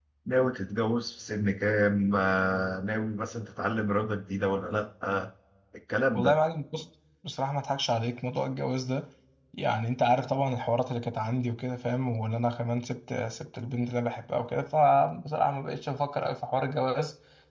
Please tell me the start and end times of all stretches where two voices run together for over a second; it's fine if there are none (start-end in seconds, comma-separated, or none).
none